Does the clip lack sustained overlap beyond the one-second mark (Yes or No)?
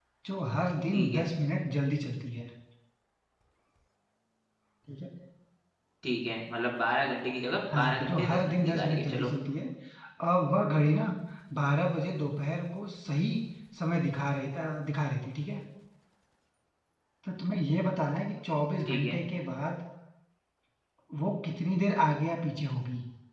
No